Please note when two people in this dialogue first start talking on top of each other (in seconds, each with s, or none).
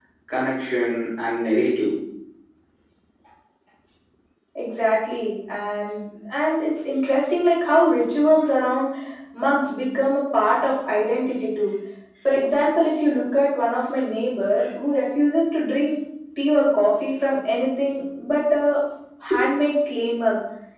none